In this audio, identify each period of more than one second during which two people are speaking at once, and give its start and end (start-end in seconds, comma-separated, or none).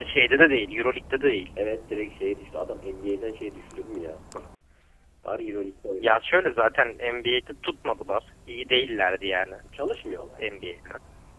none